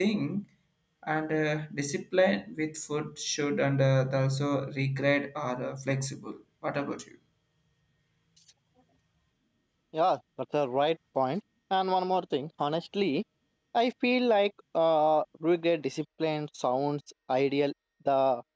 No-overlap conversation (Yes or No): Yes